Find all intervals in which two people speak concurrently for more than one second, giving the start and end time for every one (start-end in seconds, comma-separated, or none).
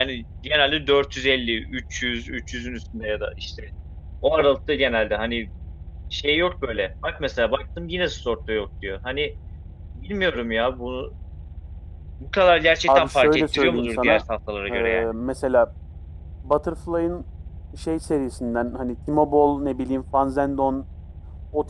12.9-14.2